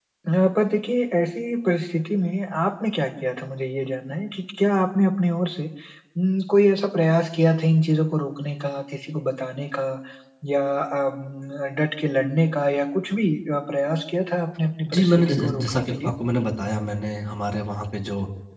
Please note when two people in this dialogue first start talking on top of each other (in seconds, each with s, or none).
14.9 s